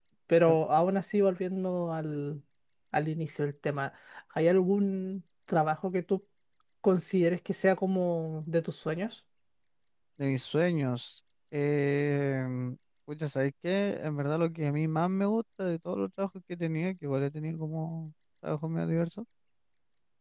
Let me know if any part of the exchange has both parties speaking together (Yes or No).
No